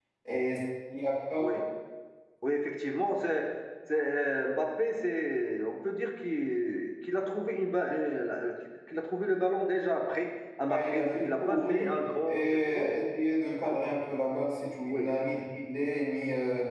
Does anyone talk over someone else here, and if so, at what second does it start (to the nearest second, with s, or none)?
11 s